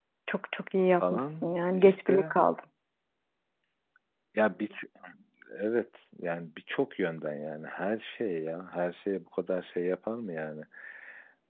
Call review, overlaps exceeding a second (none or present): present